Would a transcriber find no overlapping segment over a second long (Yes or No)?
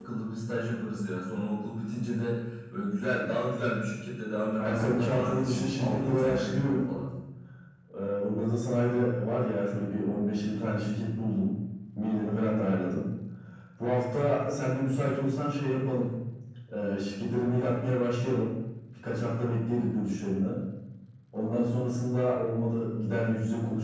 No